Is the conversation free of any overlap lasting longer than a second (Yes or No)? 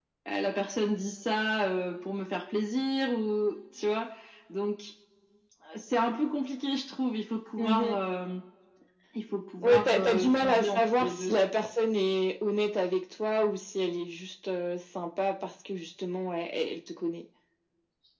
No